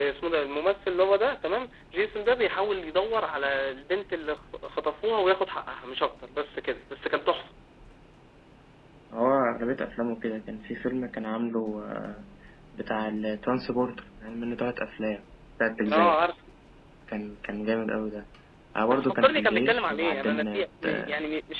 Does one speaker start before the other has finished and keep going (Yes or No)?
Yes